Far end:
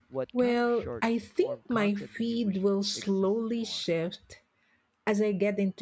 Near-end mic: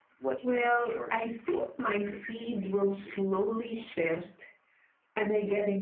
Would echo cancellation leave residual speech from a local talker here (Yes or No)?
No